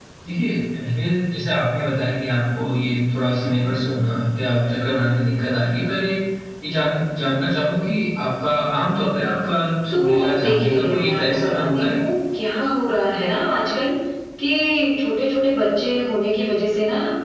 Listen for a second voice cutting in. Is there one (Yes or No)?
Yes